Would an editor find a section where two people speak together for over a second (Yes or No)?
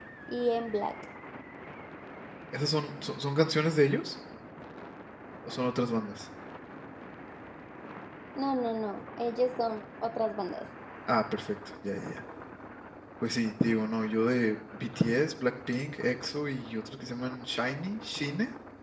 No